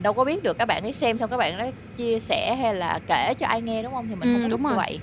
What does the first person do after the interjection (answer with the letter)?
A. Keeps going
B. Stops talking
B